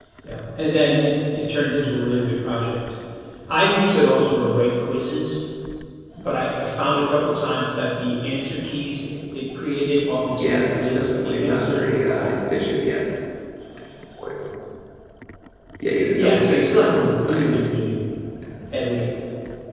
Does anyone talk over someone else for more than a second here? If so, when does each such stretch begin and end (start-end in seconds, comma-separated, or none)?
10.4-12.4, 16.1-17.6